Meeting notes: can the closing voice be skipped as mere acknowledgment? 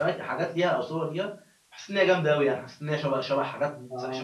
No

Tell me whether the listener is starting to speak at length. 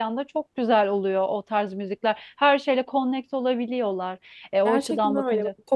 Yes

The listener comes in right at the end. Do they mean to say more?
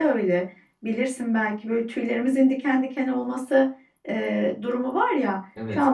No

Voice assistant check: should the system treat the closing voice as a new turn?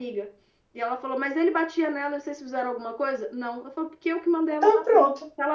No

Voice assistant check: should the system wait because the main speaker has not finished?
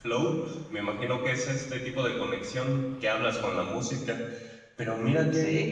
Yes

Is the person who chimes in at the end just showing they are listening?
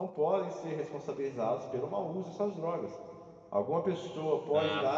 Yes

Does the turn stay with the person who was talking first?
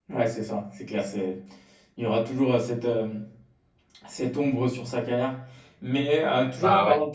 Yes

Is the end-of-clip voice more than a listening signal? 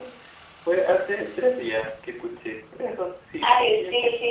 Yes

